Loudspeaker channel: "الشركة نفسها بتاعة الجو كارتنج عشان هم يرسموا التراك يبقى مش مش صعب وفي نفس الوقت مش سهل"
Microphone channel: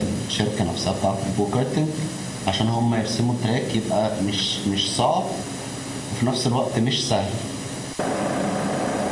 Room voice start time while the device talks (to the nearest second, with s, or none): none